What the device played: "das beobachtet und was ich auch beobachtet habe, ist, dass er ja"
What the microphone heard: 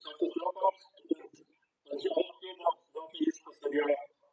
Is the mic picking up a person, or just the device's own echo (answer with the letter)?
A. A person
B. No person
B